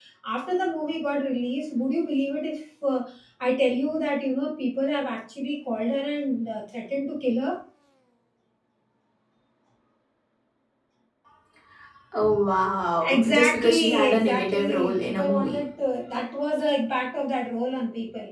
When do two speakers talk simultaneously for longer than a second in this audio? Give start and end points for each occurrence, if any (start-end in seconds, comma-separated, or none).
13.1-15.6